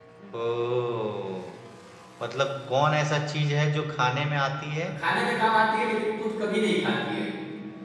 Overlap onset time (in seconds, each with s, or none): none